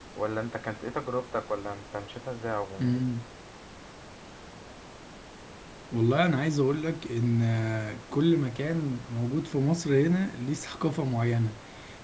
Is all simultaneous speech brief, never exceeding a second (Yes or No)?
Yes